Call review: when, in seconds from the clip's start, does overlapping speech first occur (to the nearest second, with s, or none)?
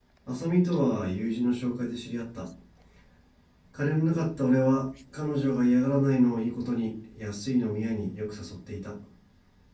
none